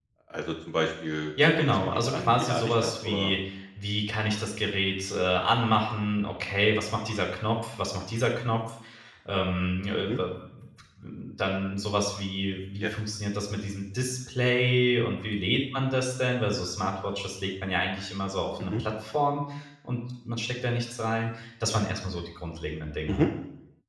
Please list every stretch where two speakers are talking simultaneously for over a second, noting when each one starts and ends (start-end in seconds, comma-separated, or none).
1.4-3.3